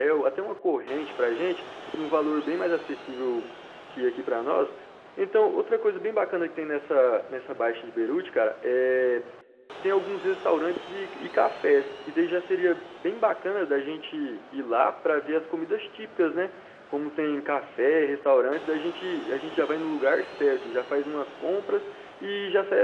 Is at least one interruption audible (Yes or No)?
No